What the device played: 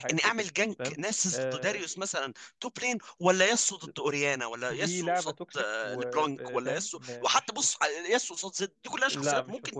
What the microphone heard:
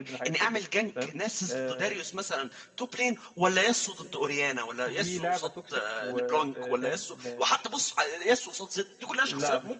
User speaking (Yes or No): No